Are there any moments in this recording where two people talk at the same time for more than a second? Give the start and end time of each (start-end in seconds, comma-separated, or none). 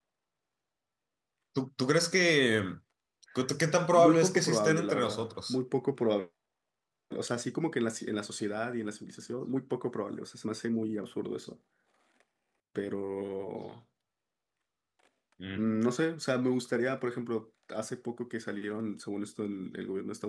3.9-5.6